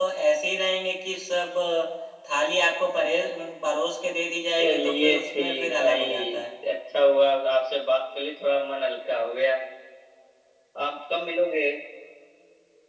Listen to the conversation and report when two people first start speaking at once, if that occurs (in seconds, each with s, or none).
4.6 s